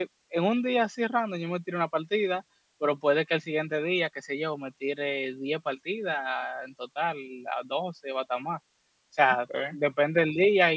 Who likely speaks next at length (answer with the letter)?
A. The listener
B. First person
B